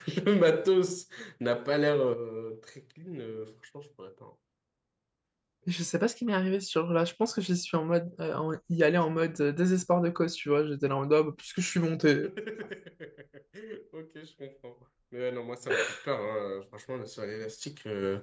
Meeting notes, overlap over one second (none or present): none